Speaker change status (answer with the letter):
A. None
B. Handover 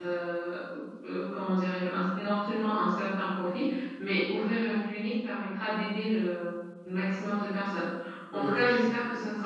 A